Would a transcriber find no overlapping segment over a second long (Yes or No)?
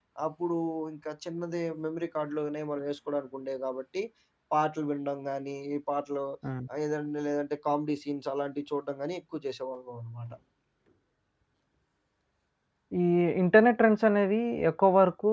Yes